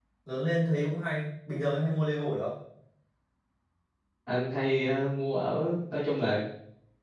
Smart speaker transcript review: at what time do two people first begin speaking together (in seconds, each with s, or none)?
none